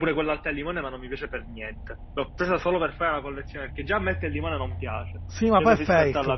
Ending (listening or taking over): taking over